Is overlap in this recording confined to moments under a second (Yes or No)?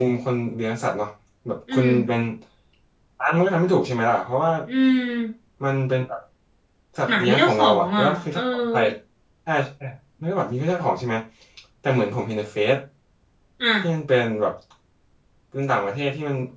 No